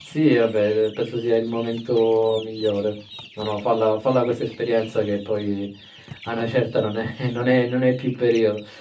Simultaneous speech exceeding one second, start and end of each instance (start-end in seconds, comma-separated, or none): none